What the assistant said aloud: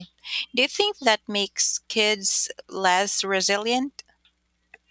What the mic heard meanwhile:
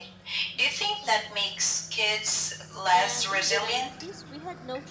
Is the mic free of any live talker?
No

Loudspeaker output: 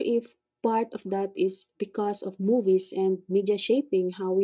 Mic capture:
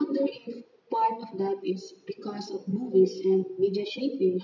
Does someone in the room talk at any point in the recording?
No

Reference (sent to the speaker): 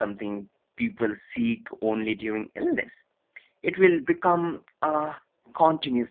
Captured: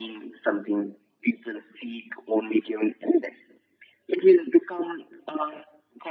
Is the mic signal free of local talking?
Yes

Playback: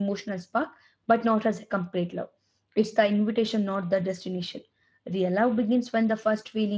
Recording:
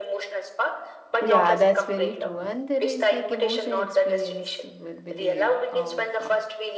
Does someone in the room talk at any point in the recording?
Yes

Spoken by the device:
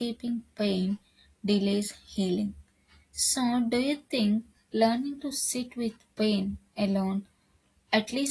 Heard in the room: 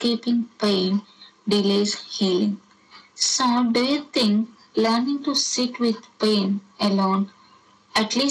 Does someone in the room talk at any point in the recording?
No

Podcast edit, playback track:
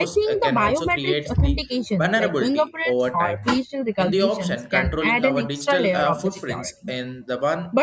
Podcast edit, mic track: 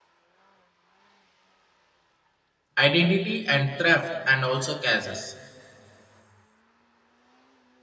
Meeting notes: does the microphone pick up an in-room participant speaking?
Yes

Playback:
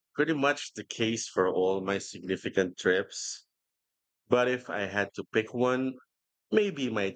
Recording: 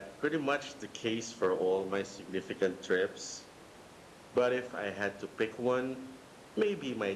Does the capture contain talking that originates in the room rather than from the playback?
No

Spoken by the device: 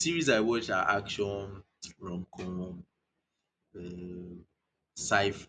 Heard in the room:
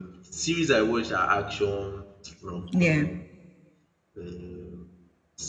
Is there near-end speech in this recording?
Yes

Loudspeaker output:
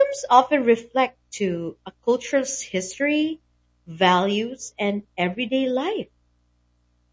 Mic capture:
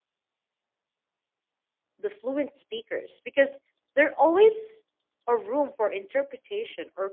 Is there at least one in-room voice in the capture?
Yes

